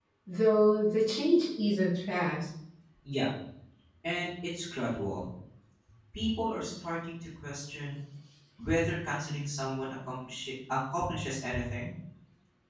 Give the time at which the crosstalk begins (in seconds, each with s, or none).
none